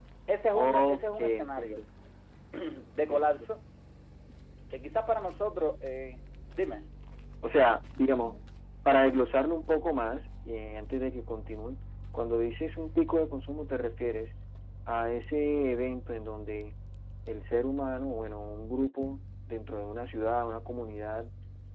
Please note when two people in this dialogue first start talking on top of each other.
0.5 s

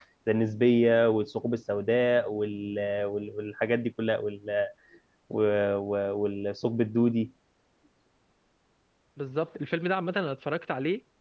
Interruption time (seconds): none

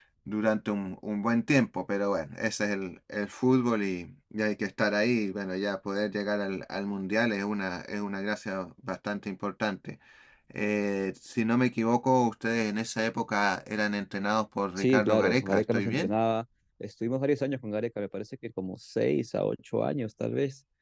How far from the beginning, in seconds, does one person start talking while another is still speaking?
14.8 s

